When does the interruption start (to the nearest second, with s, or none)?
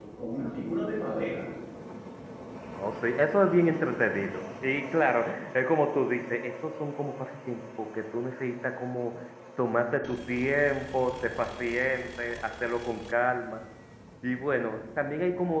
none